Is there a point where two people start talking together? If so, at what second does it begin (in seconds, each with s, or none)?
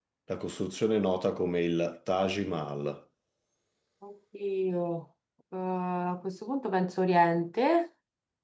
none